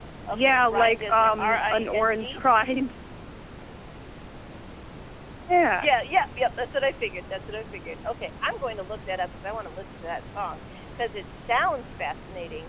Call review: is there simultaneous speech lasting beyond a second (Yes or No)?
Yes